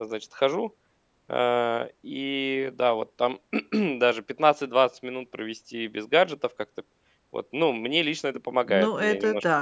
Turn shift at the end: Yes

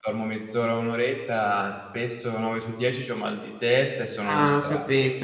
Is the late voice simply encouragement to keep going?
No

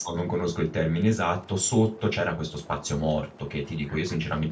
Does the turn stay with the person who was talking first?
Yes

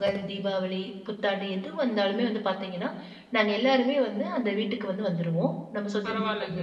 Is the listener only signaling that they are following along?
No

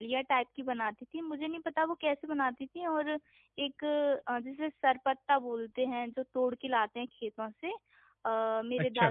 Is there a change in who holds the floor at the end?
No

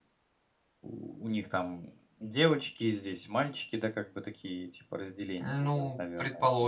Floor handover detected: Yes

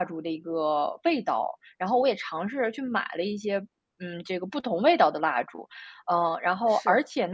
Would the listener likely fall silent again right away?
Yes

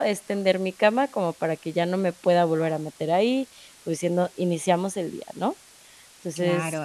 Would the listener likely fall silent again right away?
No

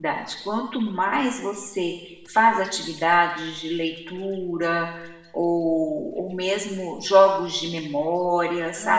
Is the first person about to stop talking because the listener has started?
Yes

